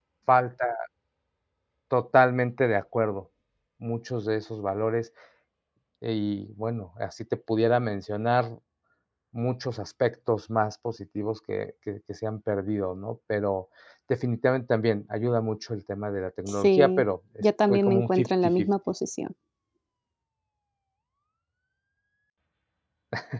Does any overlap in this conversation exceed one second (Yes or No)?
Yes